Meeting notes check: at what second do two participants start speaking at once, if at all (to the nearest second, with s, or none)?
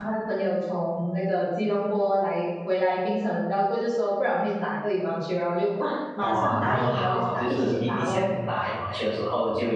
6 s